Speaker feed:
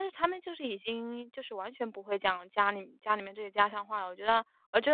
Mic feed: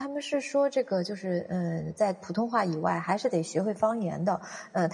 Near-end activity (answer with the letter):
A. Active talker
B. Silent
A